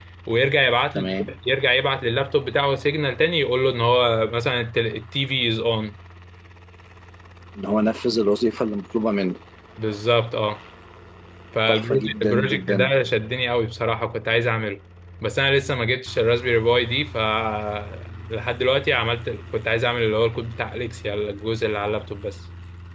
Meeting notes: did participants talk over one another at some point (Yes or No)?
Yes